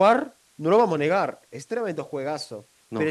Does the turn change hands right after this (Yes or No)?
No